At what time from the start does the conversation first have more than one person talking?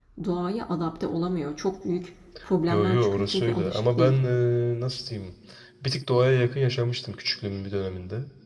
2.7 s

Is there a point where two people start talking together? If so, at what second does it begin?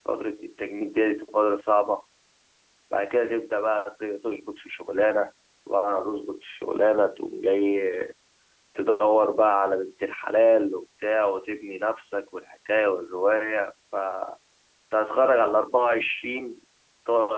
none

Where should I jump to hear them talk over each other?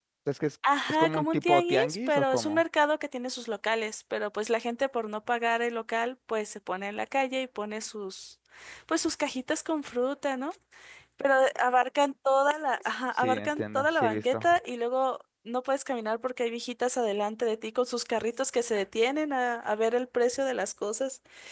0.9 s

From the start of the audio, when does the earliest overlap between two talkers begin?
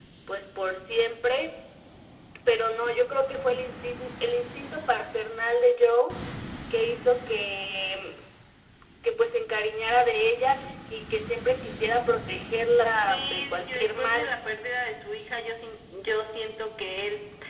13.0 s

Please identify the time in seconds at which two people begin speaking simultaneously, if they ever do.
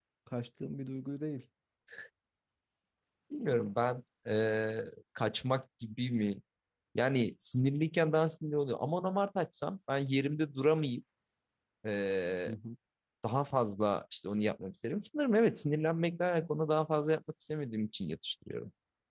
none

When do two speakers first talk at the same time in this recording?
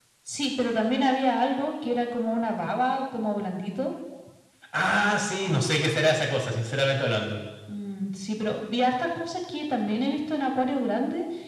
none

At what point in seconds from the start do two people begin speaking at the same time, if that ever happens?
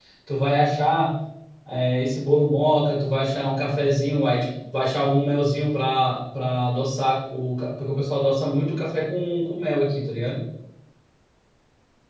none

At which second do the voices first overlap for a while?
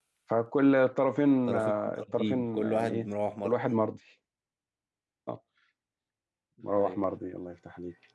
1.5 s

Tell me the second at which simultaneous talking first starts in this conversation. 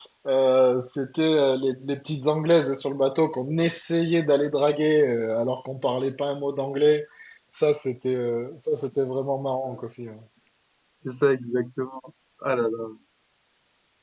none

